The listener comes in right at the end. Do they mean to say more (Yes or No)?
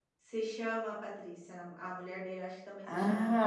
Yes